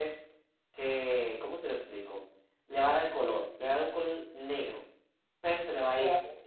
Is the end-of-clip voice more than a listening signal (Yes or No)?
No